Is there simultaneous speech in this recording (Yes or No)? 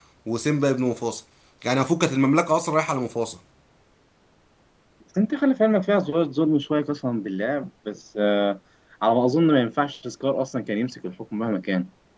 No